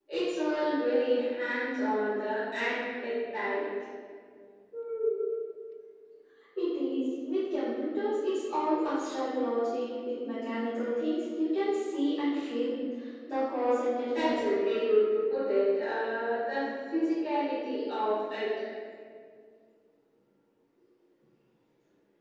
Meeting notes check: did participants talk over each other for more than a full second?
No

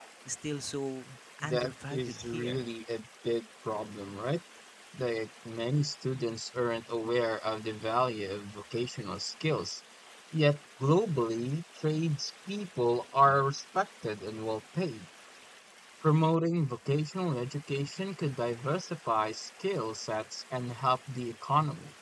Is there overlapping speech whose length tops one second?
Yes, from 1.4 s

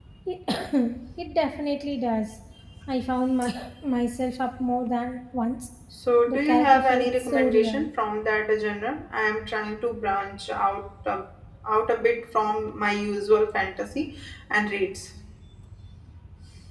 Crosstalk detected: Yes, from 6.3 s

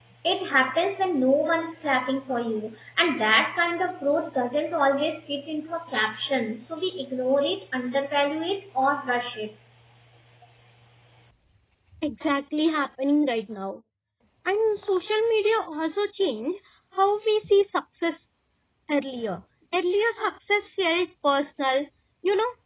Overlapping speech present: No

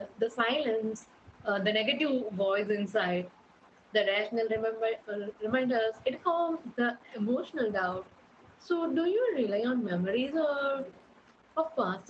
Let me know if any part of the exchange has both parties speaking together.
No

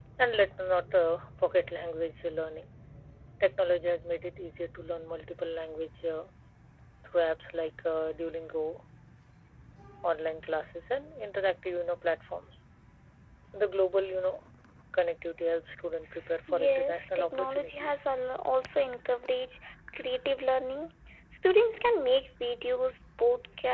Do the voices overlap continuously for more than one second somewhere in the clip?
Yes, from 16.3 s

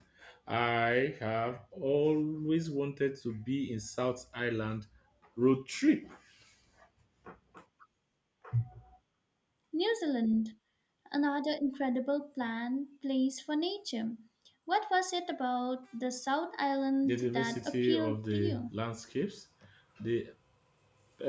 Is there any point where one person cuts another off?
Yes, from 17.0 s

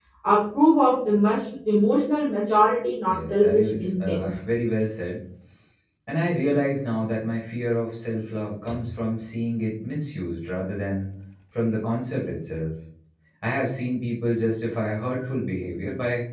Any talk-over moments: Yes, from 3.1 s

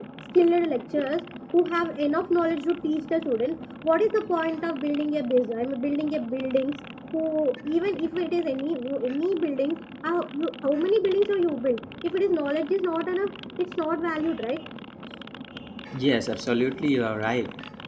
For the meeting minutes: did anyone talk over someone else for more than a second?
No

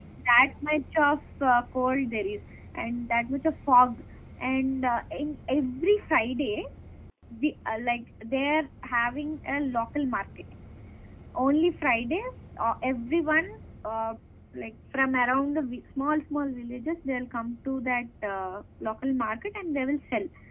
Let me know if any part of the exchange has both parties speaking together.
No

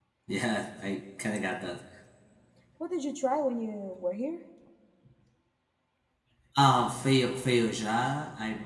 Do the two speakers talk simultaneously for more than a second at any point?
No

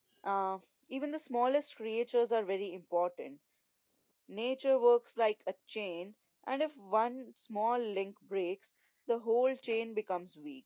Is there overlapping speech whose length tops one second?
No

